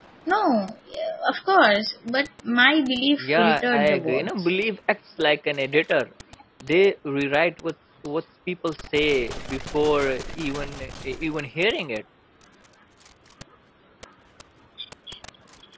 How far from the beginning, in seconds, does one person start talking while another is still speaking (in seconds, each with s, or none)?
3.2 s